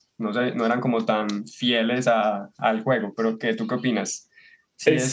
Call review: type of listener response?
taking over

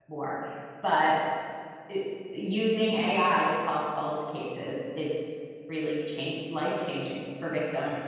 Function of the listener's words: taking over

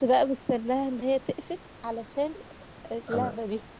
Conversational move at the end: taking over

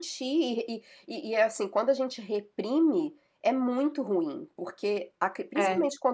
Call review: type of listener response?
listening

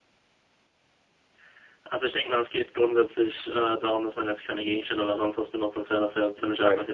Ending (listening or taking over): listening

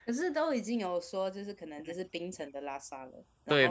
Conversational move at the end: taking over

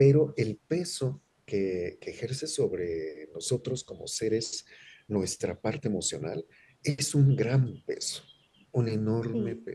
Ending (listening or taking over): taking over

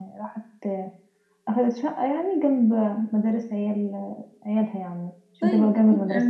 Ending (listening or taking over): taking over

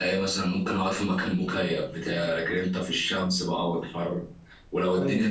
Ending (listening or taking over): listening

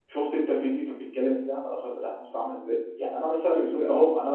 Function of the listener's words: listening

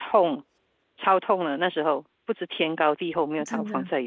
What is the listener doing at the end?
taking over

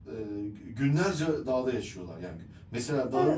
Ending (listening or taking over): taking over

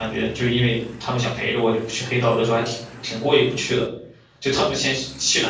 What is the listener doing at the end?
listening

